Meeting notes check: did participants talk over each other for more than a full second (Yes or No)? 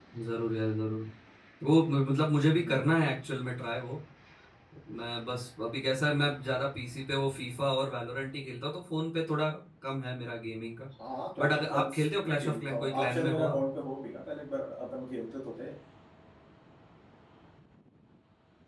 Yes